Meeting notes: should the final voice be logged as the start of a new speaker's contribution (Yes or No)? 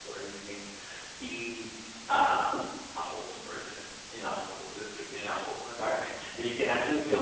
No